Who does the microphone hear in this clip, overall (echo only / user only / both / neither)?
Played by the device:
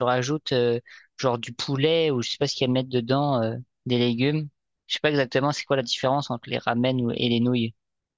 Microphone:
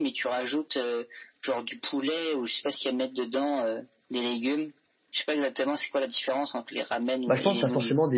both